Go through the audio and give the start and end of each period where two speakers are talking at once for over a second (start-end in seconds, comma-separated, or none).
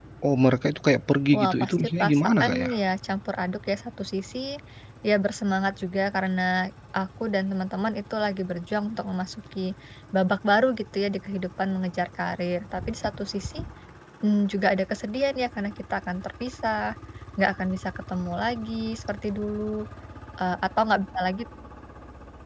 1.3-2.7